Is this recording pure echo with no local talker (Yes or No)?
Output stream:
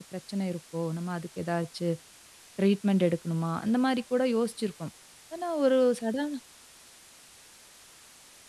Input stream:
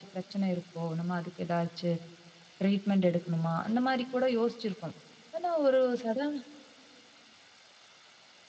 Yes